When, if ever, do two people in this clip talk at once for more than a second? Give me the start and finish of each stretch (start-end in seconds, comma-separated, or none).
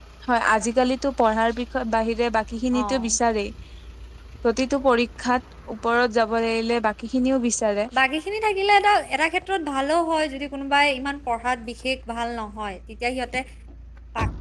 none